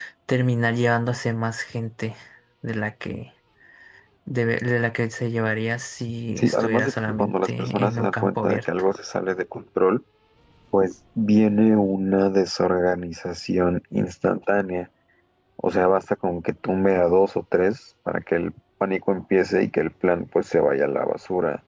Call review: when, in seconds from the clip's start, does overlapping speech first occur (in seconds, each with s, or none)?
6.4 s